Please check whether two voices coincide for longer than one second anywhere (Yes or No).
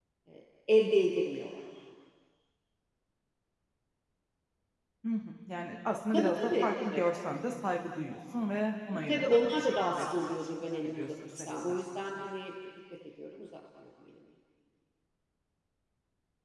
Yes